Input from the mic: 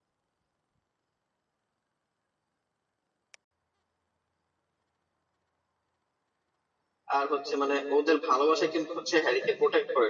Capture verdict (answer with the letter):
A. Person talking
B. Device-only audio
A